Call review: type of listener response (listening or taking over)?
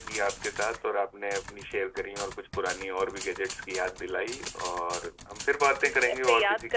taking over